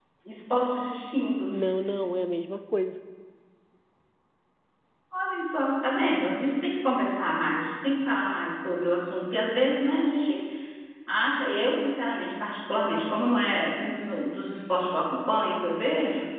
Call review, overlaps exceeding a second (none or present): none